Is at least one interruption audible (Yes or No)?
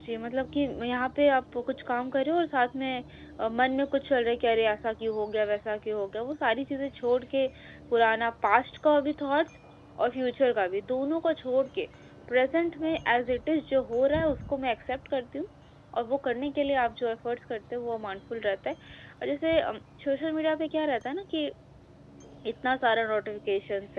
No